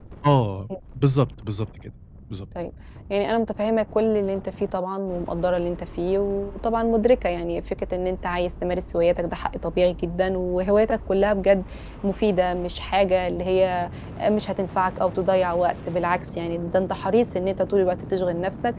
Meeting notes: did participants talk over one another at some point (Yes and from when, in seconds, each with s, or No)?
No